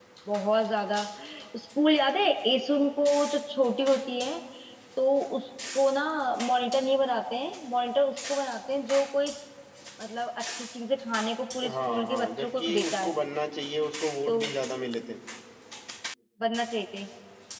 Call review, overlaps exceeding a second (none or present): present